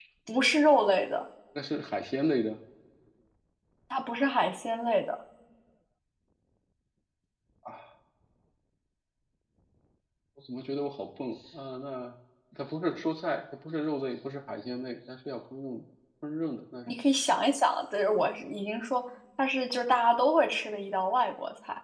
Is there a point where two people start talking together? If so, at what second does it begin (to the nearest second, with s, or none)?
none